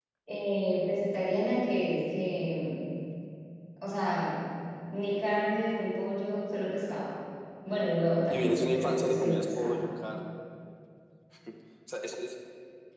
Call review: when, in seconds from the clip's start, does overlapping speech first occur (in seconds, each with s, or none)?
8.3 s